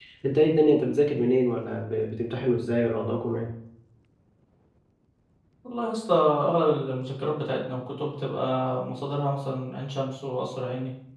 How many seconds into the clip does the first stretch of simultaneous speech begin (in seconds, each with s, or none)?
none